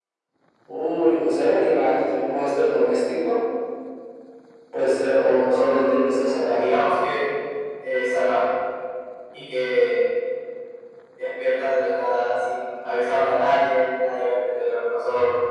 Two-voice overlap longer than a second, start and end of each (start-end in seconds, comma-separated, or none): 5.5-6.8